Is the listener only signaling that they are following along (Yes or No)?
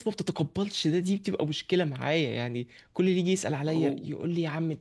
Yes